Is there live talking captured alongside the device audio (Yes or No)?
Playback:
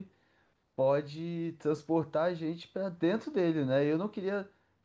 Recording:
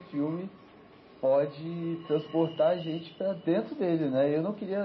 No